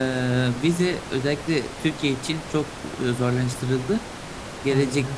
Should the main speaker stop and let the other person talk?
No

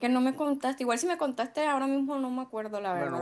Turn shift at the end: Yes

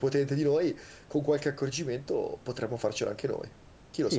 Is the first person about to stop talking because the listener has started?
Yes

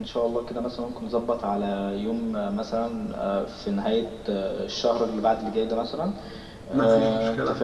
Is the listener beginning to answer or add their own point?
No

